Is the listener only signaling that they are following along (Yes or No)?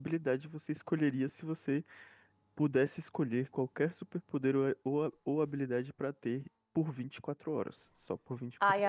No